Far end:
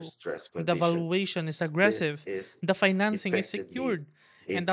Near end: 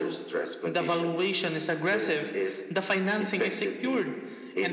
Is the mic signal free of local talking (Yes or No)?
Yes